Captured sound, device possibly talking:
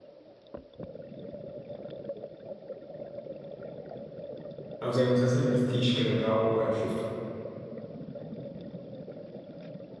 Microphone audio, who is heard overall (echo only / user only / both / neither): user only